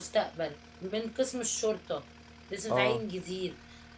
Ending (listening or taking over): listening